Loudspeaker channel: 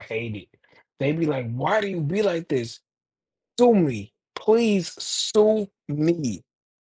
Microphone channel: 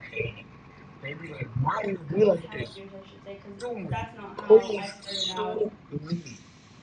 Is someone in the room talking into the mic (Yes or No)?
Yes